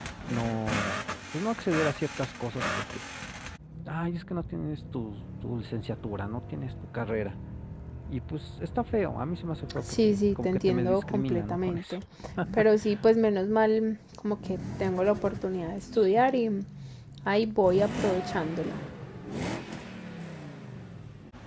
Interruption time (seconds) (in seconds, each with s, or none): 9.8 s